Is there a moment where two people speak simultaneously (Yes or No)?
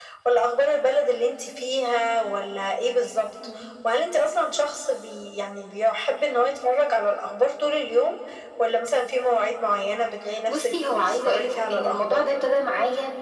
Yes